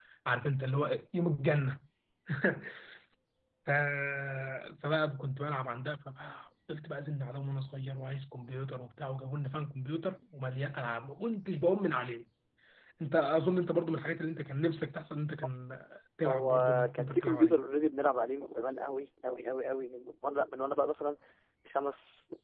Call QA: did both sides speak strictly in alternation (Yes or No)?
No